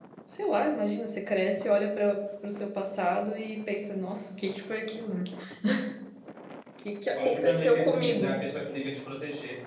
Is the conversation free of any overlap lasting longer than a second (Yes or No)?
No